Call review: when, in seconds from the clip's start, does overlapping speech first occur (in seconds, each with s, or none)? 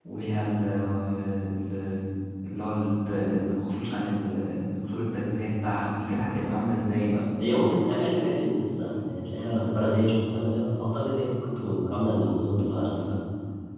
none